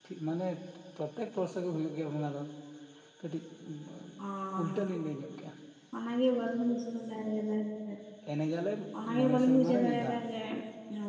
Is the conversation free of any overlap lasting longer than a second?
No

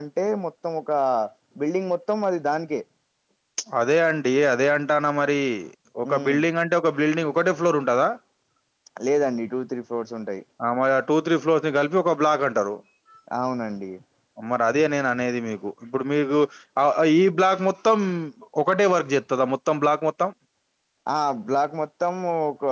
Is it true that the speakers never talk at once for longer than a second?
Yes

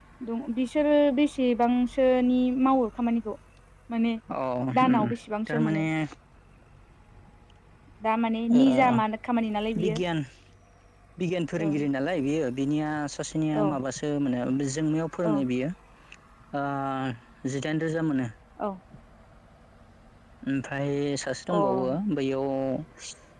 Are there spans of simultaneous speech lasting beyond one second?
No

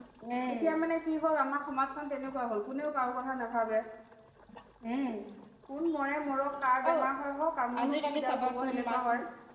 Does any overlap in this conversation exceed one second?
Yes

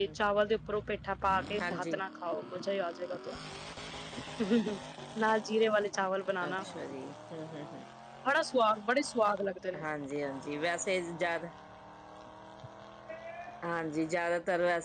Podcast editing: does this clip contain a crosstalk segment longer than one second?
No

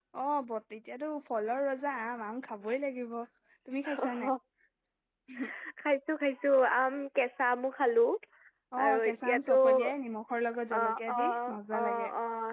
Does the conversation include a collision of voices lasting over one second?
Yes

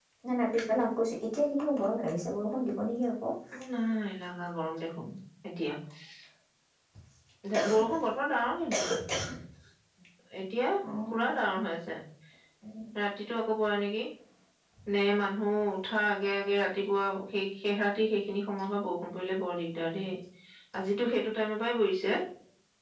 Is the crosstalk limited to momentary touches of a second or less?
Yes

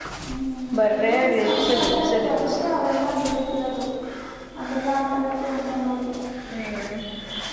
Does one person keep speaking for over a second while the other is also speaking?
Yes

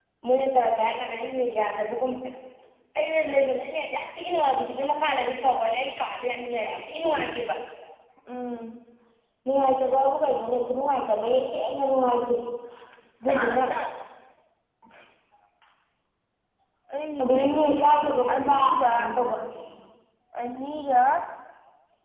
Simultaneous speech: Yes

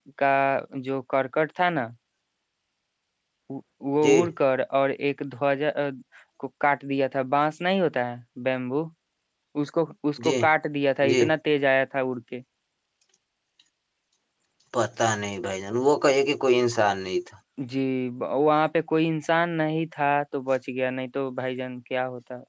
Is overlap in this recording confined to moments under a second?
Yes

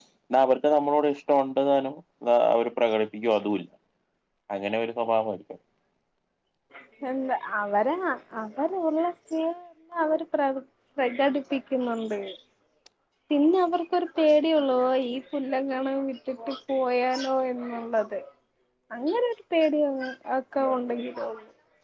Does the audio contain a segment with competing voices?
No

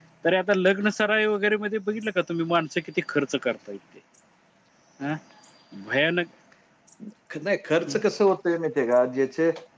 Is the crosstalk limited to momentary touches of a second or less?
Yes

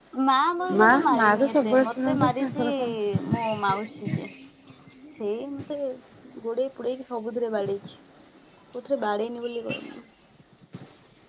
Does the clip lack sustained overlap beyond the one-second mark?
No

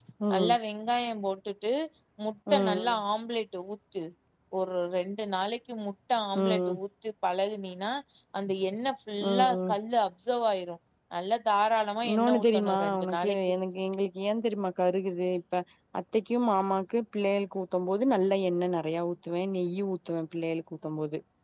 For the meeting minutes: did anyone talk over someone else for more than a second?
Yes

